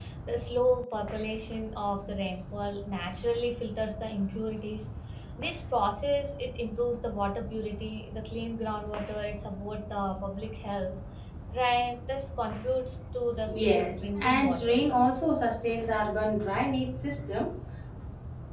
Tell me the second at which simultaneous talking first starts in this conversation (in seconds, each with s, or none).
13.5 s